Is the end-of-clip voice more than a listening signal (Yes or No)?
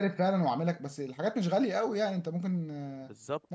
Yes